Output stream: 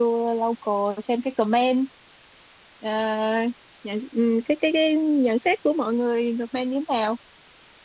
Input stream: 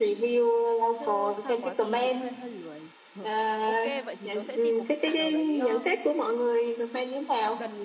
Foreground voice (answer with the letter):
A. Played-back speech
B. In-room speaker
A